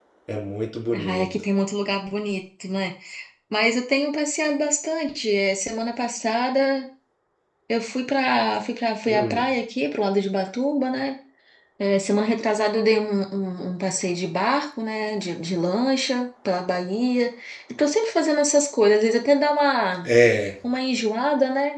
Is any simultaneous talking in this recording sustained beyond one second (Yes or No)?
No